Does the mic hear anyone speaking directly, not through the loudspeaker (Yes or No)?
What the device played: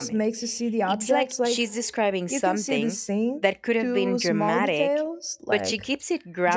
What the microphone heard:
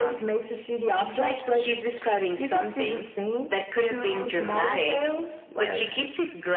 No